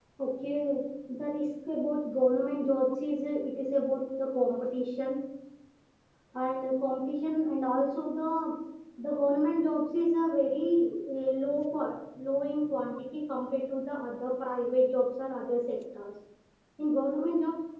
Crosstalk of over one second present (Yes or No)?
No